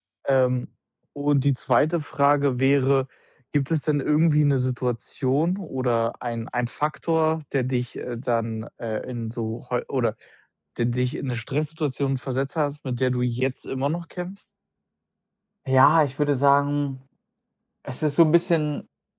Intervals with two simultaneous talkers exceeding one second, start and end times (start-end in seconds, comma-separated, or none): none